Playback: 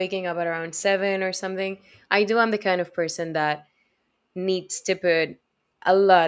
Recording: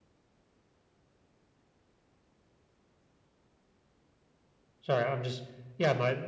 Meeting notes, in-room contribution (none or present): present